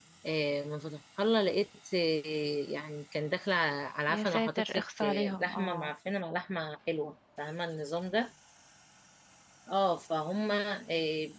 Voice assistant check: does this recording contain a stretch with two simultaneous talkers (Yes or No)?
Yes